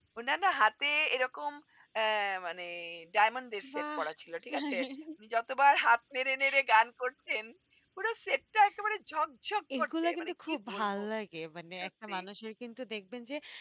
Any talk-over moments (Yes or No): Yes